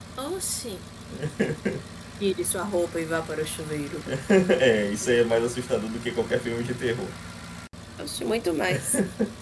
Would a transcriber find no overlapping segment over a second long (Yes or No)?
Yes